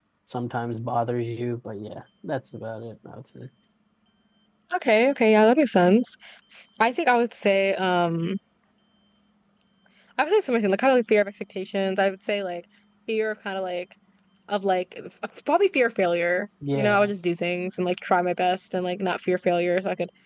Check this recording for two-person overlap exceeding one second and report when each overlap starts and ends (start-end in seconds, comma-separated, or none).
none